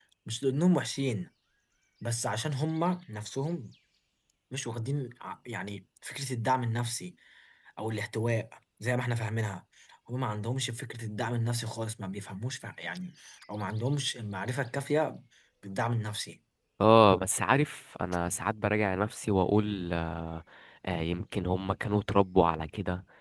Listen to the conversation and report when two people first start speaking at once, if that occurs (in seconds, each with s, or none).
none